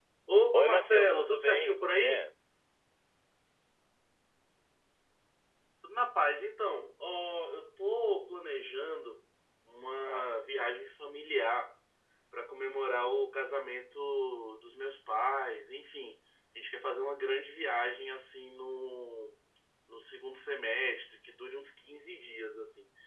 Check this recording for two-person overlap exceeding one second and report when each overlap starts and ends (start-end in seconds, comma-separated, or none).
0.5-2.3